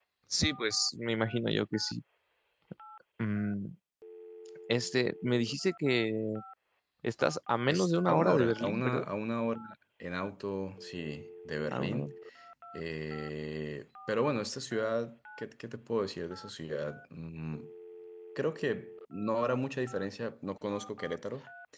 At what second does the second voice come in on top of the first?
7.7 s

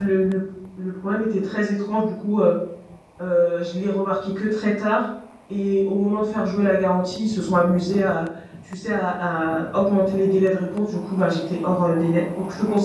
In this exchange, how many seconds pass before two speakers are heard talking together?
none

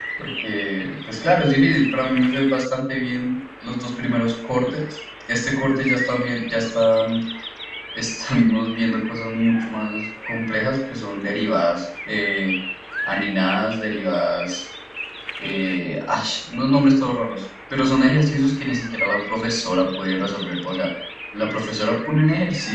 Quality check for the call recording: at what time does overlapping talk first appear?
none

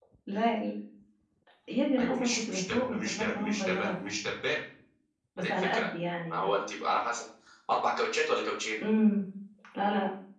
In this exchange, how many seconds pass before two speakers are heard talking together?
2.0 s

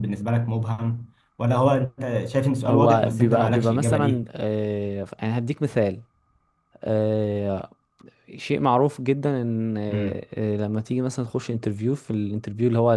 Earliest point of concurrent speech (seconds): 2.6 s

